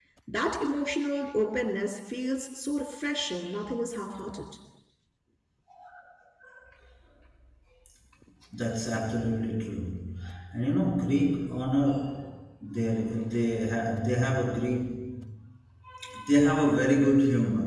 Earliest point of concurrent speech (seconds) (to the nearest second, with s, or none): none